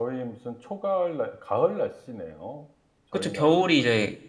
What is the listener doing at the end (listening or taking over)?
taking over